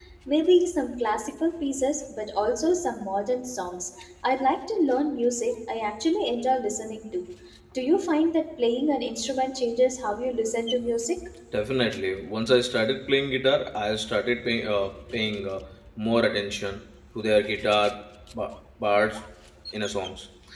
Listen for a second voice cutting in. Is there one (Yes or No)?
No